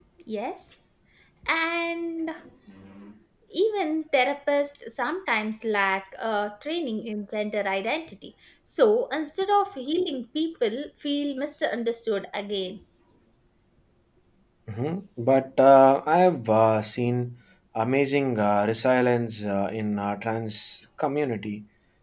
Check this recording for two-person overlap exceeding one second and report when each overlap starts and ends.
none

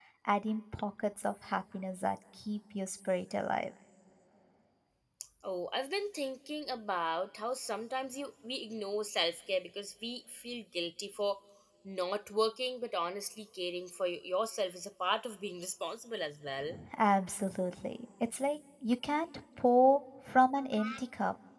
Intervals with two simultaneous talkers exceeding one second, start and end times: none

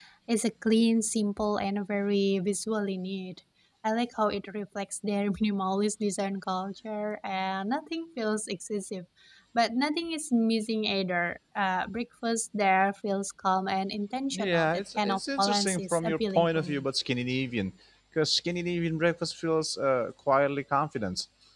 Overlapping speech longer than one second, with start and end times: 14.3-16.9

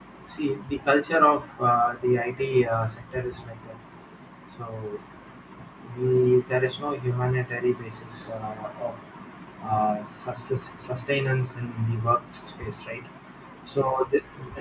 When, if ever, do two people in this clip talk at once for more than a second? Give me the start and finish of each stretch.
none

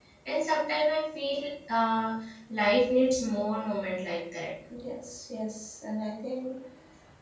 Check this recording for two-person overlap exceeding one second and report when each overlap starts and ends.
none

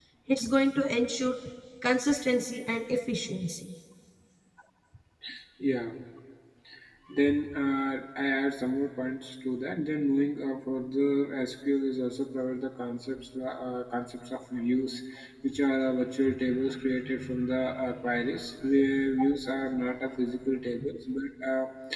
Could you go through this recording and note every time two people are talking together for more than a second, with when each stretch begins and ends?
none

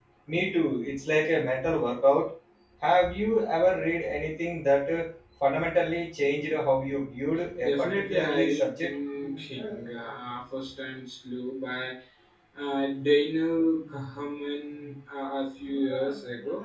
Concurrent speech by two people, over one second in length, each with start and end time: 7.6-8.9

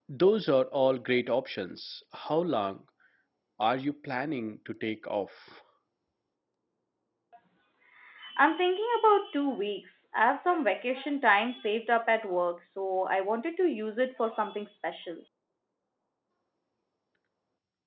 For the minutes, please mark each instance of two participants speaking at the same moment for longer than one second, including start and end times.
none

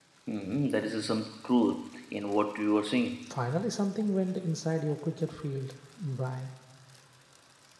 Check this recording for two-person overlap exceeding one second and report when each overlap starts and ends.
none

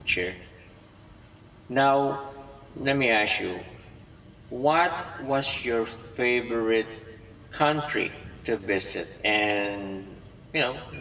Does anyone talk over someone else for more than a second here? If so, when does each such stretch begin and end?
none

